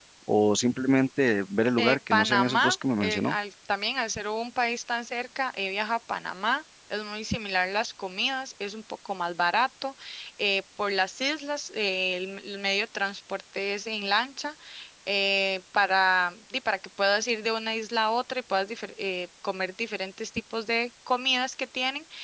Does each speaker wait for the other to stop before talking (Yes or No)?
No